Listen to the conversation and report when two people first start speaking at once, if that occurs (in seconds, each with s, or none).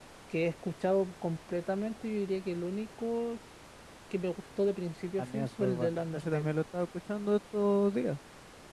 5.2 s